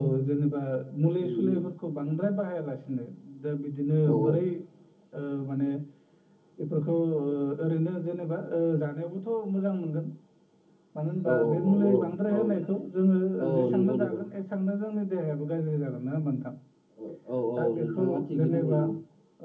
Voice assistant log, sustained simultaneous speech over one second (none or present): present